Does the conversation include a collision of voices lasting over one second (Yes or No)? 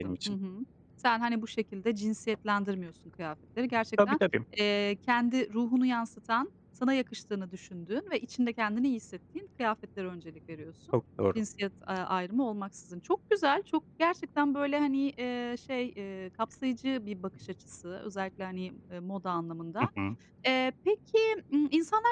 No